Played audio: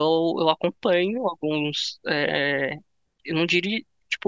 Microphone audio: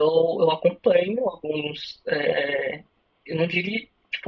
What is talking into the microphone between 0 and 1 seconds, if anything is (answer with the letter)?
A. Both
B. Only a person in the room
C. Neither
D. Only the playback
D